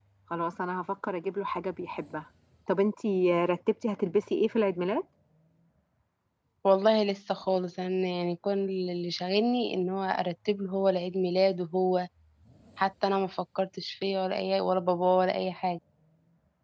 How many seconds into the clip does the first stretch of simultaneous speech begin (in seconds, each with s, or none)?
none